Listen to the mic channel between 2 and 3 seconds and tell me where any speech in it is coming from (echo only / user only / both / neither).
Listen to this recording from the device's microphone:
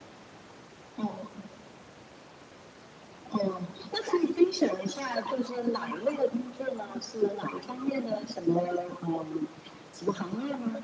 neither